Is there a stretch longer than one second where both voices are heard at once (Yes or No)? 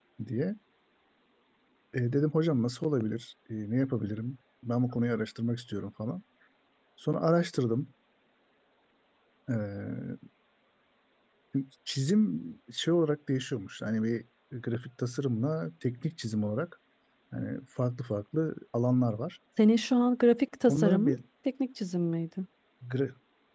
No